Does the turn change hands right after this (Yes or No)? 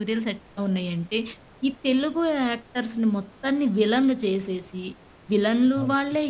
No